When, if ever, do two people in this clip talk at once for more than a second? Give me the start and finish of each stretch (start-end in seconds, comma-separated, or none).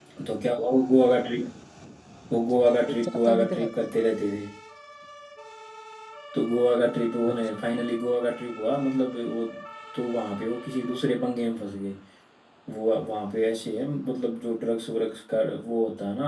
2.4-3.7